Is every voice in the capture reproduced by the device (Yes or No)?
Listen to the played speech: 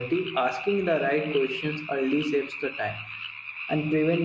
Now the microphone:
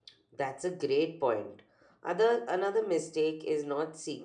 No